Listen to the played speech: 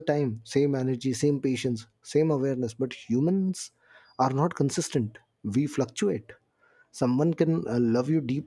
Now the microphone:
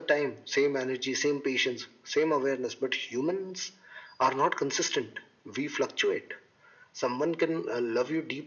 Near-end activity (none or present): none